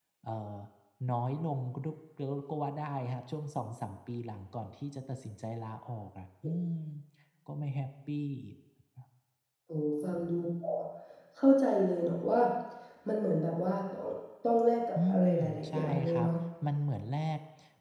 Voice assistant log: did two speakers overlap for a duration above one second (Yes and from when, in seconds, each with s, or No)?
Yes, from 15.0 s